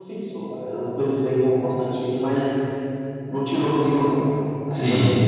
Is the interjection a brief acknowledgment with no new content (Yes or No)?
No